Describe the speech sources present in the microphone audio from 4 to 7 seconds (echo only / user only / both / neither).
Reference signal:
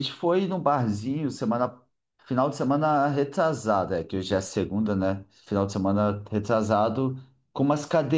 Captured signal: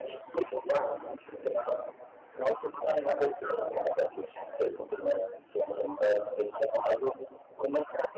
echo only